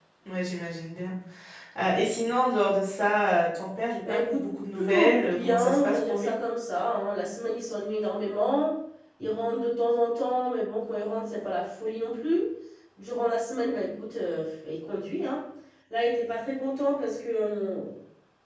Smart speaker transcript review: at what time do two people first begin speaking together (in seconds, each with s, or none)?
4.0 s